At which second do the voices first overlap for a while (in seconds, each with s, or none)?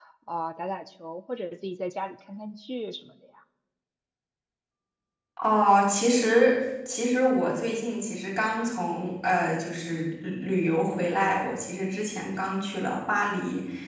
none